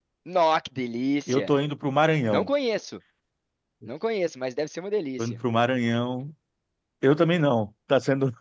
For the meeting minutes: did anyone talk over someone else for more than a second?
No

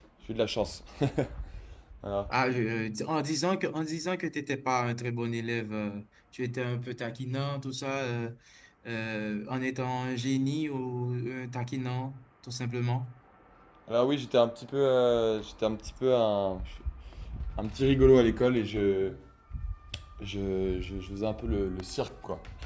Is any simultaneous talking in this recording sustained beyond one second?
No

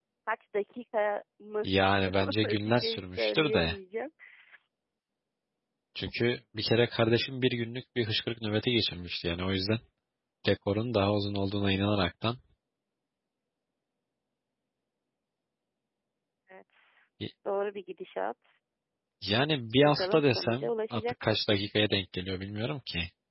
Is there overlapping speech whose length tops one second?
Yes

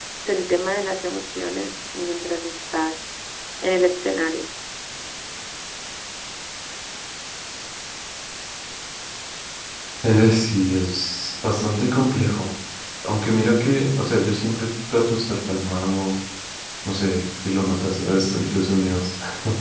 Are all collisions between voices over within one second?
Yes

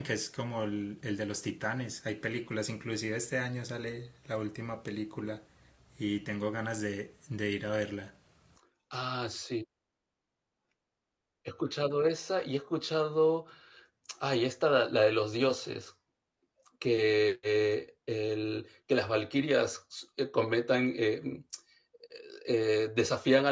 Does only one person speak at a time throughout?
Yes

